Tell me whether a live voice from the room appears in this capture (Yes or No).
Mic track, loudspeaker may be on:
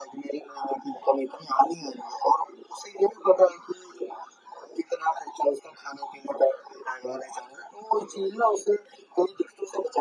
No